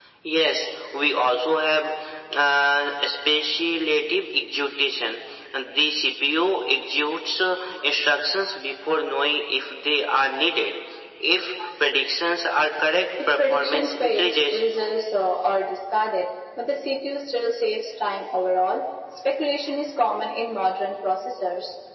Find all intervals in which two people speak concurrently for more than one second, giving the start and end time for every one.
13.3-14.6

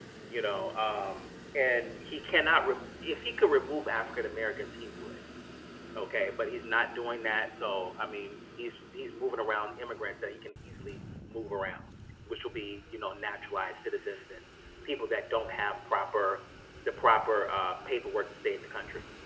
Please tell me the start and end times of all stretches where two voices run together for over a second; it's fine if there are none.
none

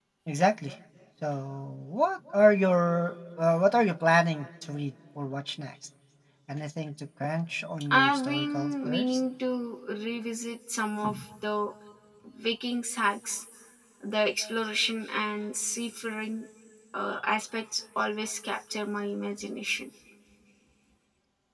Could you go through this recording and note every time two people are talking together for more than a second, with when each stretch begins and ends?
7.9-9.2

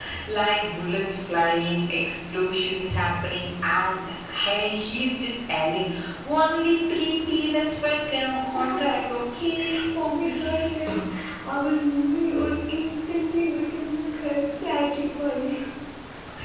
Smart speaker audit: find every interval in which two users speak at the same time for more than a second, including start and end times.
none

